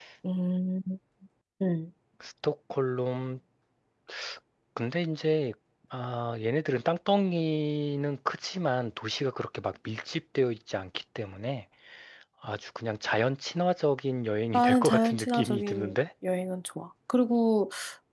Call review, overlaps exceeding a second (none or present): present